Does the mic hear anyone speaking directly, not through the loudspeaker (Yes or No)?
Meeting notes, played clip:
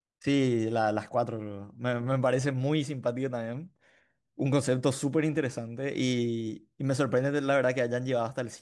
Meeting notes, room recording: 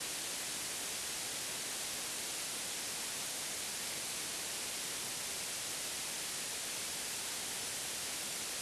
No